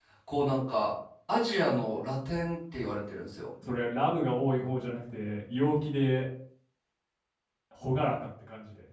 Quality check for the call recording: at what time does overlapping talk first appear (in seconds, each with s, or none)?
none